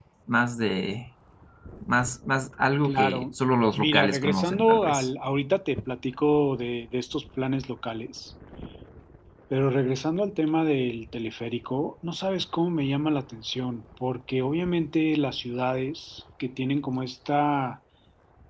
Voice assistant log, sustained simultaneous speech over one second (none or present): present